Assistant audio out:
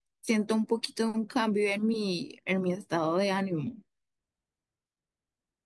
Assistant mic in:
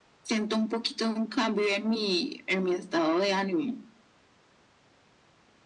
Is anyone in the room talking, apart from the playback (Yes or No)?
No